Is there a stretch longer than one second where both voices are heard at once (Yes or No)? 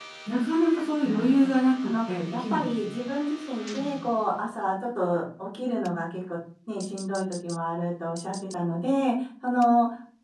Yes